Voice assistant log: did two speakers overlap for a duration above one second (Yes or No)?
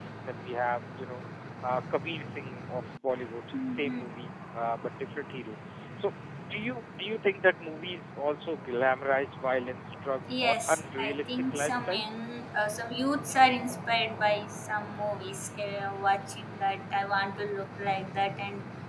Yes